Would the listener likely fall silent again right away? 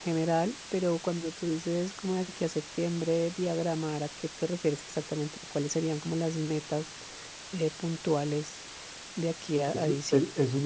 No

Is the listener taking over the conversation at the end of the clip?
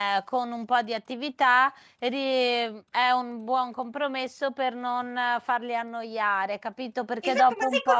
Yes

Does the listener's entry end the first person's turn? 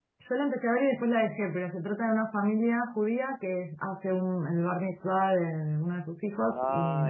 No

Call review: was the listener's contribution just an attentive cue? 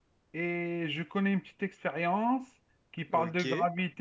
Yes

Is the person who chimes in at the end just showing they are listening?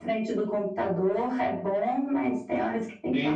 No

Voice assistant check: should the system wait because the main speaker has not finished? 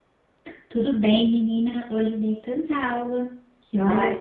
No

